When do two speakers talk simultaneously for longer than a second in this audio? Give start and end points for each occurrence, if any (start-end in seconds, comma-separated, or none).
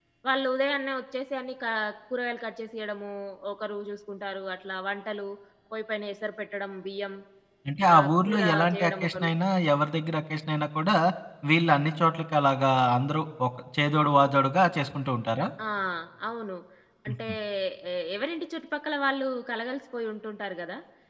7.9-9.3